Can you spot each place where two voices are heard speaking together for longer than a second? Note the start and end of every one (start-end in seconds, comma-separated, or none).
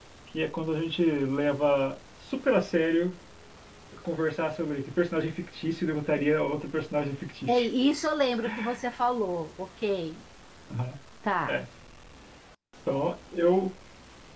none